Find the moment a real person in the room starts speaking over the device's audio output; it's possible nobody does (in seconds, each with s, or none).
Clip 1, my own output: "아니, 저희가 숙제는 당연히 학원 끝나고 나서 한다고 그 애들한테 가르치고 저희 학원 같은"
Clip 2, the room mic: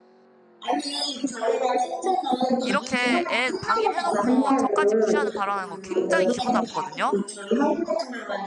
2.6 s